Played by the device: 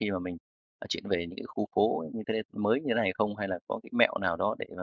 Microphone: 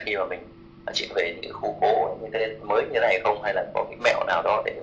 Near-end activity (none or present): none